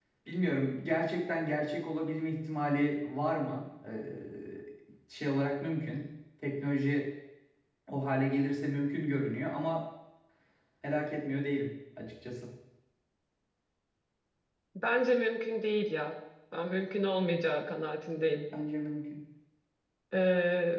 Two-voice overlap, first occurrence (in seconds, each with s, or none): none